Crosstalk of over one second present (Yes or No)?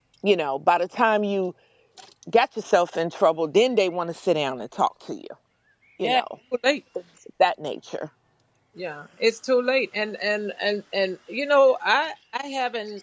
No